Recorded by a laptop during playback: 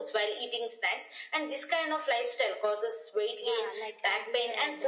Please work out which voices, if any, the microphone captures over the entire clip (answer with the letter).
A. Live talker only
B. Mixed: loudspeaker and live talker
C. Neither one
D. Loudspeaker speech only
B